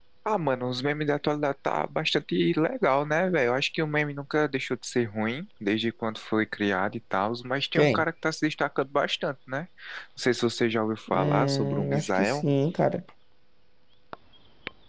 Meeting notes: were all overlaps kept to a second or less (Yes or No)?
No